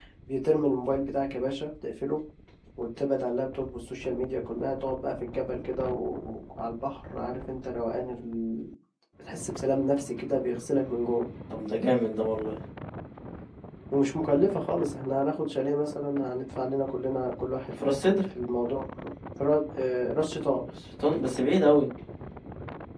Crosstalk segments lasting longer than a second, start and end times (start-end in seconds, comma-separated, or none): none